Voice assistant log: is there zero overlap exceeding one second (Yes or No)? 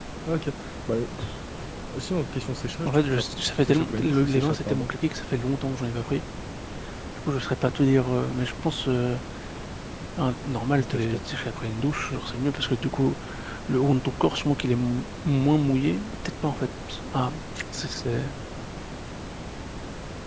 No